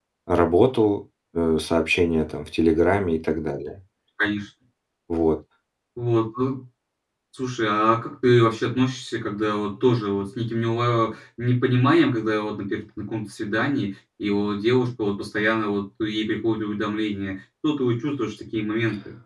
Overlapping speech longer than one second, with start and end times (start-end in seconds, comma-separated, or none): none